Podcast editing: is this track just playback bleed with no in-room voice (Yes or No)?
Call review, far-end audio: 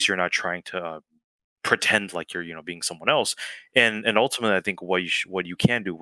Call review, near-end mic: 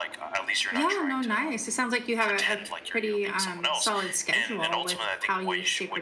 No